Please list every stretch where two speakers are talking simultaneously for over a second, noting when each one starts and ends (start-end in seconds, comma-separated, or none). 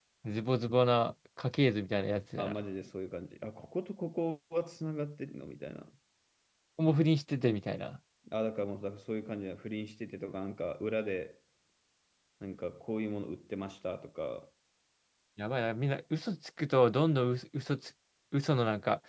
none